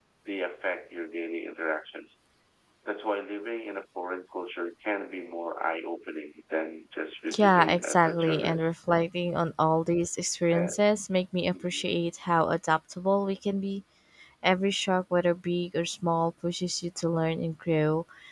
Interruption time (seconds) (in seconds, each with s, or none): 7.4 s